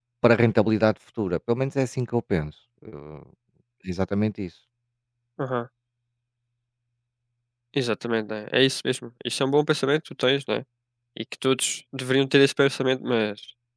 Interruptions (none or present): none